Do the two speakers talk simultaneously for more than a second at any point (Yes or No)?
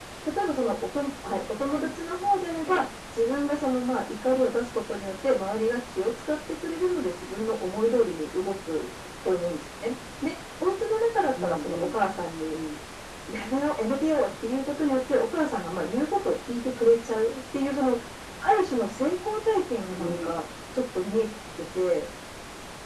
No